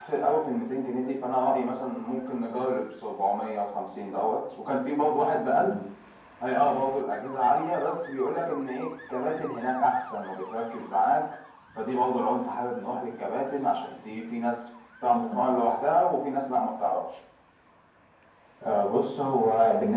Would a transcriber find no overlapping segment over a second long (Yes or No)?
Yes